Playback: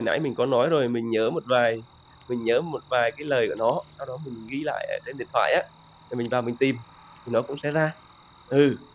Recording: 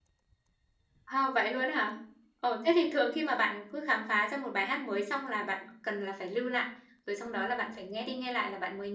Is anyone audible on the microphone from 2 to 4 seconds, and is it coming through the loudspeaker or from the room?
user only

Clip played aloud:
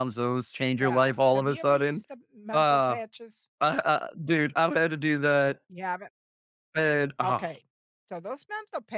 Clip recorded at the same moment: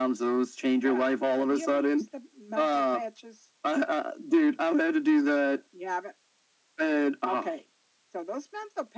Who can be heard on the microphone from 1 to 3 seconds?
echo only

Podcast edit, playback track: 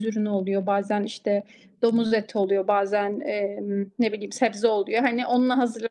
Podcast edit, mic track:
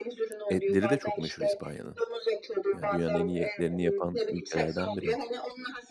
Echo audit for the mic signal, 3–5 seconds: both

